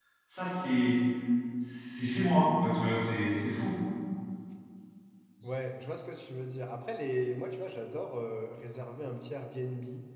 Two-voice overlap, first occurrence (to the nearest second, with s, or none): none